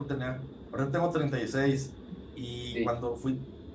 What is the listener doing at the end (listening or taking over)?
listening